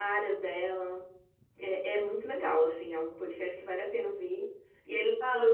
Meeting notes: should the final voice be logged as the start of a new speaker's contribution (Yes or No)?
No